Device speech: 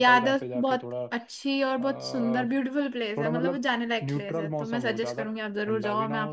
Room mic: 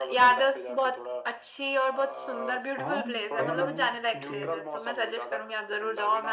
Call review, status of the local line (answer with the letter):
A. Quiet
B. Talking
B